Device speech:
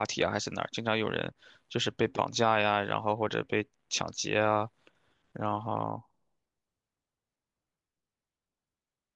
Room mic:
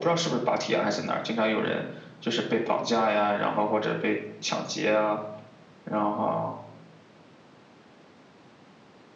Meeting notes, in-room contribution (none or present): none